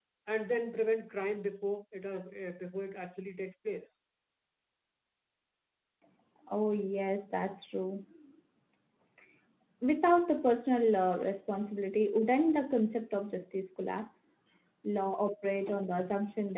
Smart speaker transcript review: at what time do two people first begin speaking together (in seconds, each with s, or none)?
none